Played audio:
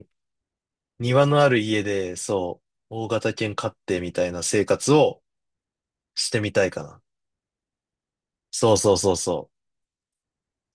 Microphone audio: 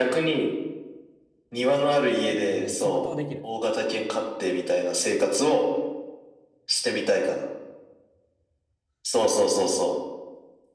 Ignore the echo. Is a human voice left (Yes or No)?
Yes